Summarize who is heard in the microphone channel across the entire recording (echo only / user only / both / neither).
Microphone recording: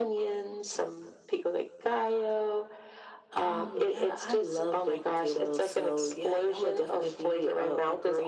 echo only